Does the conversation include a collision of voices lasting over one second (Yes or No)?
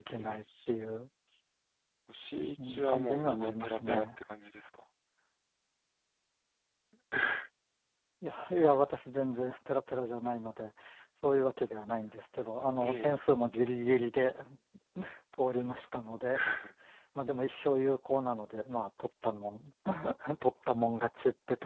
Yes